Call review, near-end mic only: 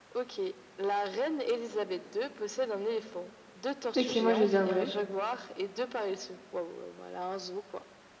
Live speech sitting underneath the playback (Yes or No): No